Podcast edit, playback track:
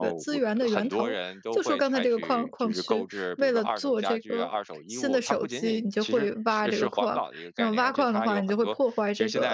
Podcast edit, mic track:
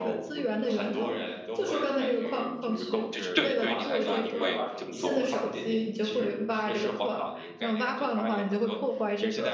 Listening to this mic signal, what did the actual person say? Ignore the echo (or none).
就是对对于你来说，你会这么做吗？